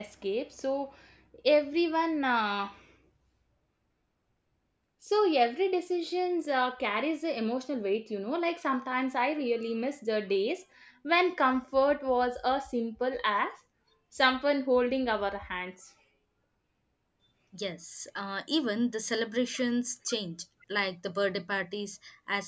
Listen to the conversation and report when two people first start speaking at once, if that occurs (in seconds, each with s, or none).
none